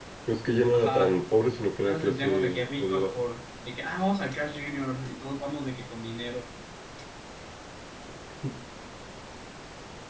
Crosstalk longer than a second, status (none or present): present